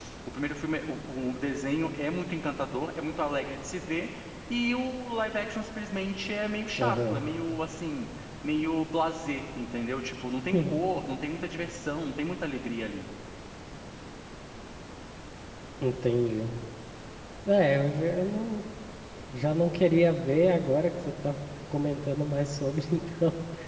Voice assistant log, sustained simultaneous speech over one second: none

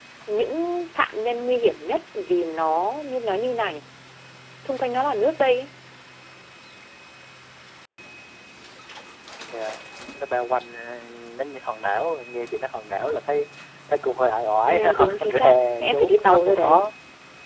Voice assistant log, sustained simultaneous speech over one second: present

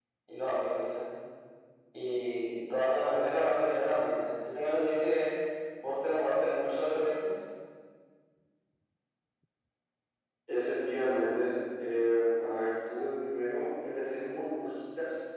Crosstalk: none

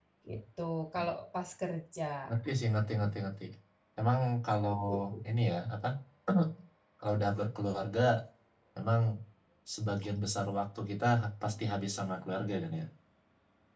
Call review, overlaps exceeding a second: none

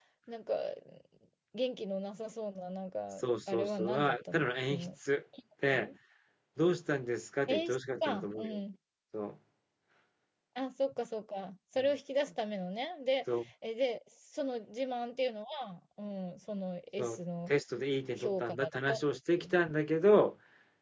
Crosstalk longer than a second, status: present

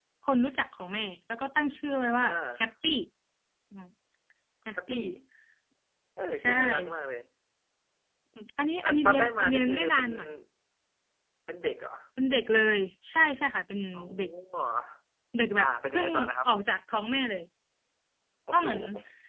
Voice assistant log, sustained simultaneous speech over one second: present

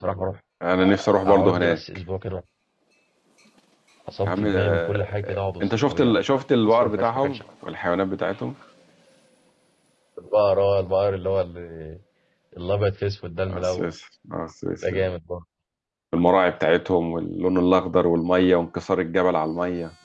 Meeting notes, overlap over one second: present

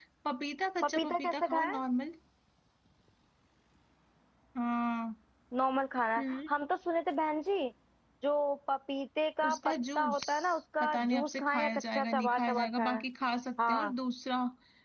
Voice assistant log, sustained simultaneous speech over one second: present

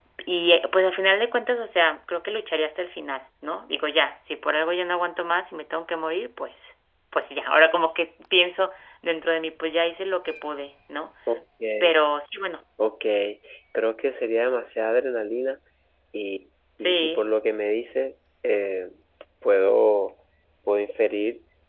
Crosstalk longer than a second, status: none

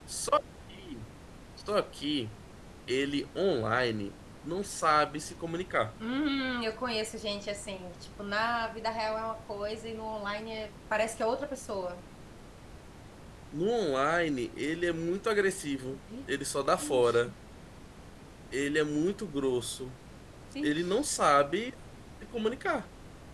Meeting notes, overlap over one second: none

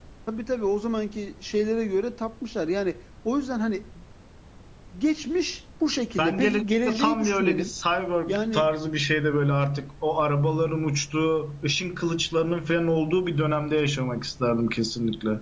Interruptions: present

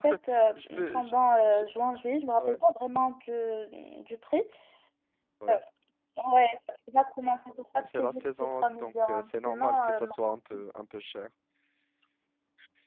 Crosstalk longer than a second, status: present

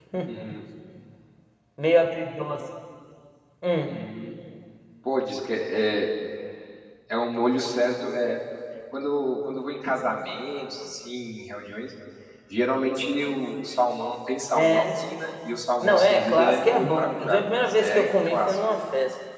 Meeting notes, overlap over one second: present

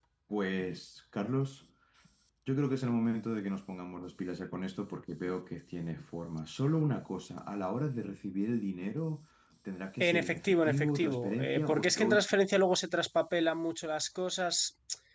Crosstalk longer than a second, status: present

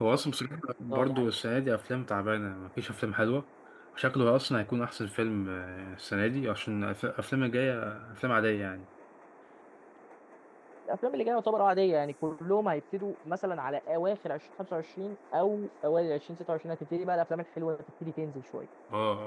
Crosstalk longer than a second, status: none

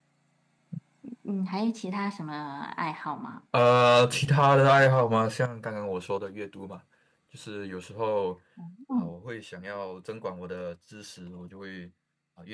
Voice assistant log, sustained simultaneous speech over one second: none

